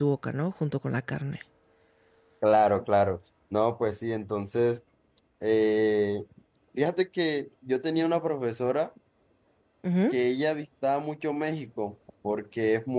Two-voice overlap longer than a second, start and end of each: none

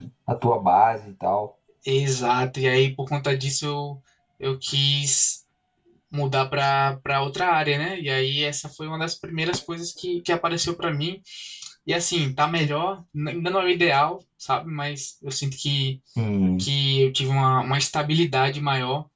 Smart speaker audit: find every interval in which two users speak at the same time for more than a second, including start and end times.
none

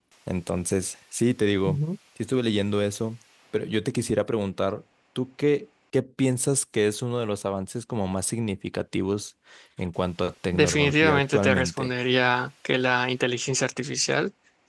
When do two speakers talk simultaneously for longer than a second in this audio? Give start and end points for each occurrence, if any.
10.5-11.9

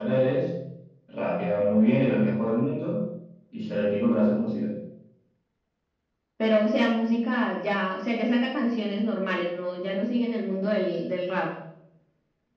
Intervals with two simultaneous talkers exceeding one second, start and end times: none

